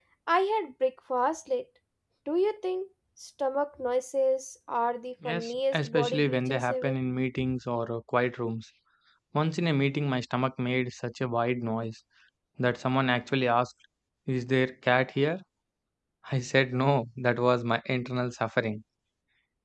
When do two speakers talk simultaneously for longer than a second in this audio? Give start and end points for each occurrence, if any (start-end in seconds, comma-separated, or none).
5.2-7.0